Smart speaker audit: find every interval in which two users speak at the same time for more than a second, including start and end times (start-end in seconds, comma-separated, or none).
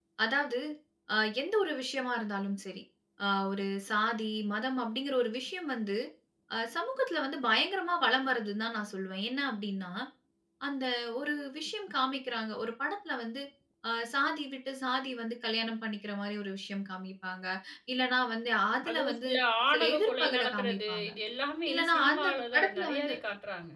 19.7-21.1, 21.7-23.1